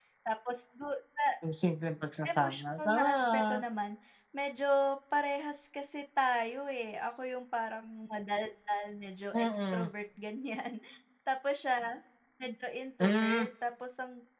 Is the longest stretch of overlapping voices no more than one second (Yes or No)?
No